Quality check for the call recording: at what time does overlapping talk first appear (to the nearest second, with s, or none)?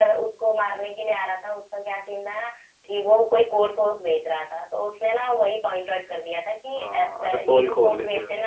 7 s